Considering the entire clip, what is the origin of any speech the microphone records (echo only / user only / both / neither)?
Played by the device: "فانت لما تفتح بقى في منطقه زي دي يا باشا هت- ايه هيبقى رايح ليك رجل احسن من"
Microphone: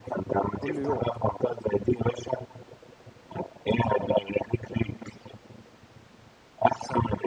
both